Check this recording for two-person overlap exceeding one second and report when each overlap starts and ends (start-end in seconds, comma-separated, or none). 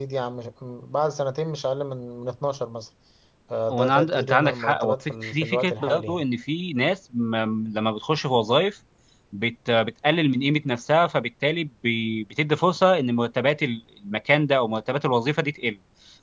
3.7-6.2